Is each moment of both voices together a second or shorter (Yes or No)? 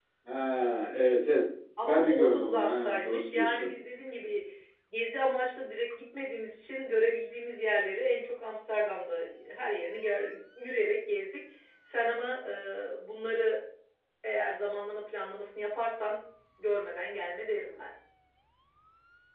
No